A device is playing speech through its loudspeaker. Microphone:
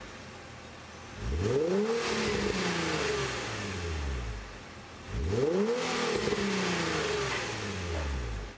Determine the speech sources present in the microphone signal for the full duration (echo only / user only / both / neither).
neither